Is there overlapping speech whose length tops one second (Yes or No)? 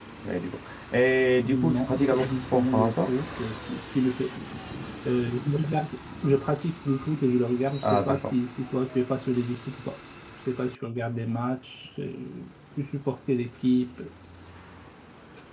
Yes